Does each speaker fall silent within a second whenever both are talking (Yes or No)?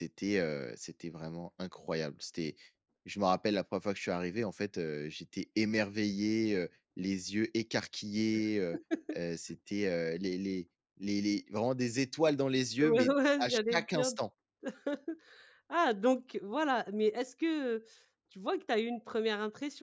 No